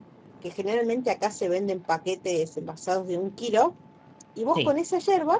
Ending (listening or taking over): listening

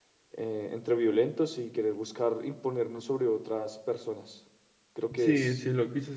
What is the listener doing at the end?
taking over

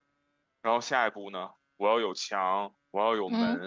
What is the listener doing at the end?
listening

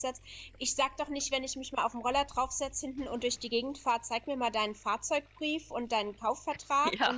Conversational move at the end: listening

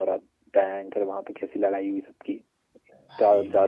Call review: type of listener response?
listening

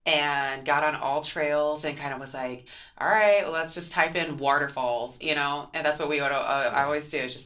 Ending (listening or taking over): listening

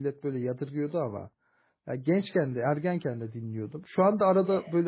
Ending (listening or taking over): listening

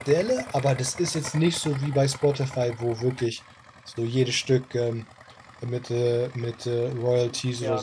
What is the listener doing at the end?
taking over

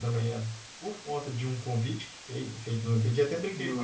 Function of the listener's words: listening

